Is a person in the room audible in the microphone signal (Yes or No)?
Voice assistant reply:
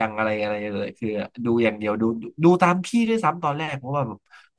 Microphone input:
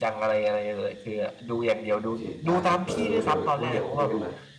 Yes